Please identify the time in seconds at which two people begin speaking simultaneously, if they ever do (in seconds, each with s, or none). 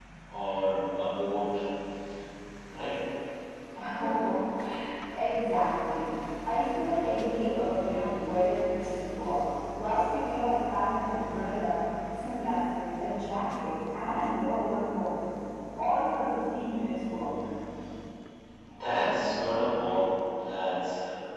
none